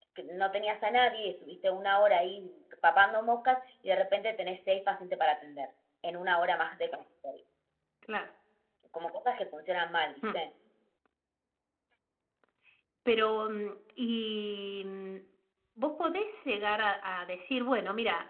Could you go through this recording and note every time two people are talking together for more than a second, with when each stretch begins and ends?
none

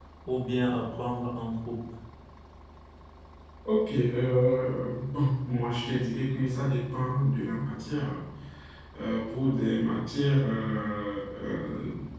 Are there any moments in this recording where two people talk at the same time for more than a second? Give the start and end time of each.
none

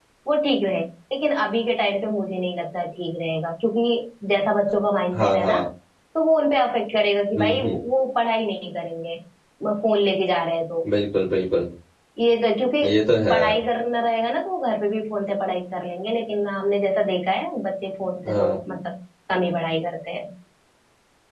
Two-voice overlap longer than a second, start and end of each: none

